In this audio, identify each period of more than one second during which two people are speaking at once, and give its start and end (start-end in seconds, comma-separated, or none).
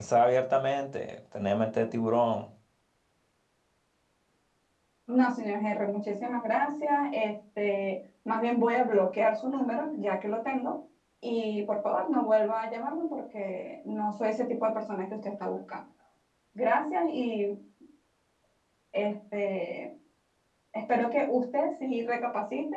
none